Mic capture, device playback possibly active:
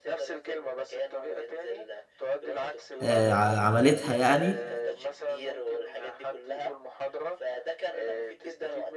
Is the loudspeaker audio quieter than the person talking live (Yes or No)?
Yes